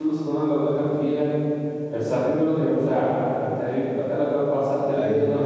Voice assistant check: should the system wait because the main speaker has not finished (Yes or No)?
No